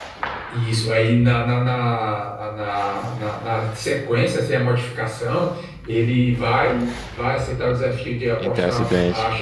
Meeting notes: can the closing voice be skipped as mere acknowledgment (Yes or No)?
Yes